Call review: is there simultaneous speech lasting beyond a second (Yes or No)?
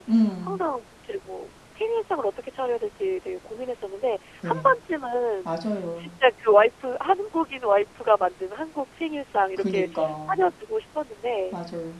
No